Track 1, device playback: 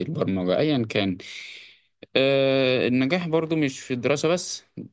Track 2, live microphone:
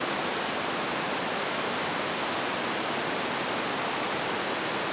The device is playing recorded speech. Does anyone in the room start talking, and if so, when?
none

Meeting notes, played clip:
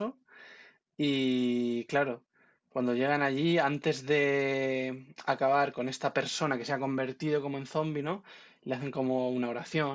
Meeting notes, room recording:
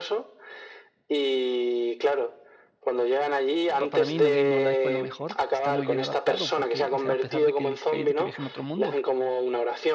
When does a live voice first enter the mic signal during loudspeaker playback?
3.8 s

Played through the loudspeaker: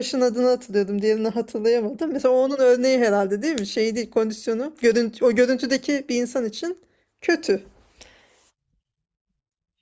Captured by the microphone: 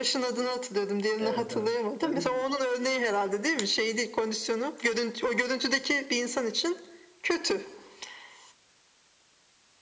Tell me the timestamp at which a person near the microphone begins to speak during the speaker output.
1.2 s

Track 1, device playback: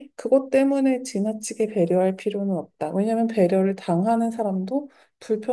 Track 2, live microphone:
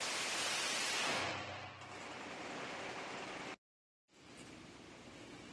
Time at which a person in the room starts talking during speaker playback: none

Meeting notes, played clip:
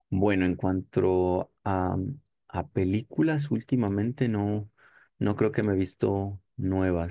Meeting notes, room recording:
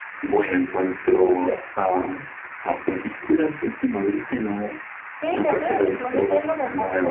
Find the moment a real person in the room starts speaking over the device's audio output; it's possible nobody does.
5.2 s

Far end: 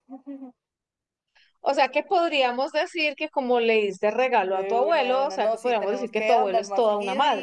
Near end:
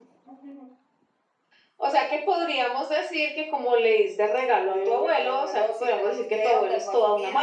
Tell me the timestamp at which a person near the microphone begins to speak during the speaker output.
none

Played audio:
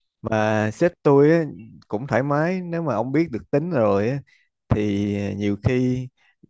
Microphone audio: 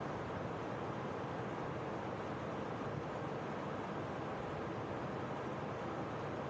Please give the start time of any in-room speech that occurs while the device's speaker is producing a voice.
none

